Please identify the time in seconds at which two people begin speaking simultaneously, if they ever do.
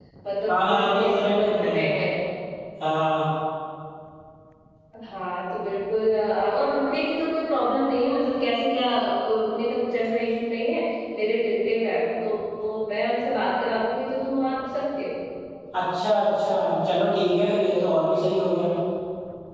0.5 s

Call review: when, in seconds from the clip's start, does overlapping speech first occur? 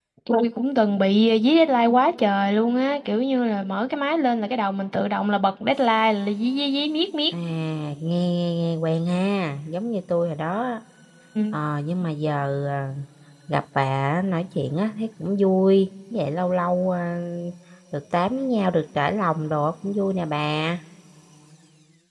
none

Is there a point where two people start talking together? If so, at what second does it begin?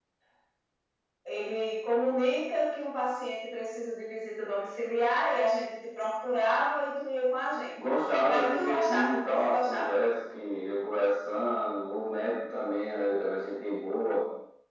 8.2 s

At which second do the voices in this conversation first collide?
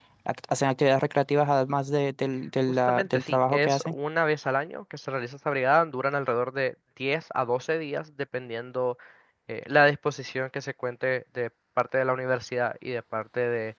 2.7 s

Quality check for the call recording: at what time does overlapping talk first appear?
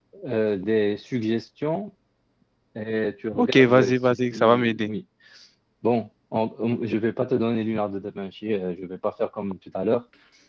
3.4 s

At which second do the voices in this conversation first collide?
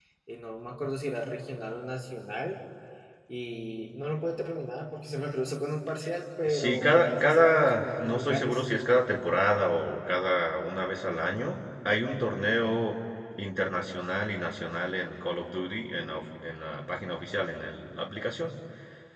6.5 s

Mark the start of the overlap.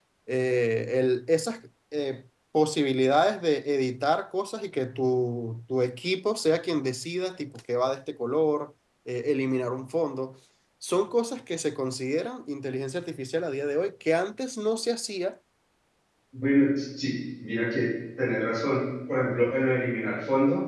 none

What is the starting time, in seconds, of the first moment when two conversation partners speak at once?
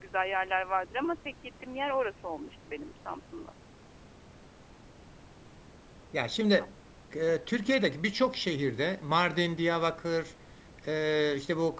none

